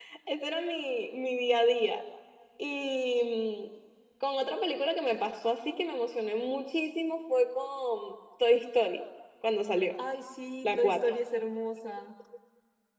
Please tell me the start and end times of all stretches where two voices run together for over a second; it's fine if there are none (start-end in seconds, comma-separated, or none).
none